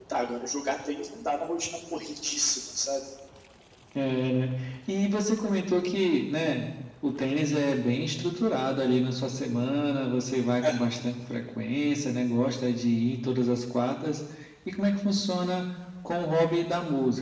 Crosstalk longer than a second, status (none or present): none